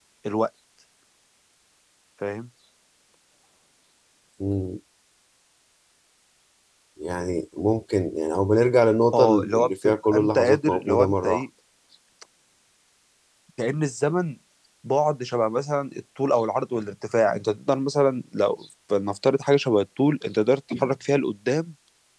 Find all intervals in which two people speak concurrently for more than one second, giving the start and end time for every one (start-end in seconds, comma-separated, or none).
9.1-11.4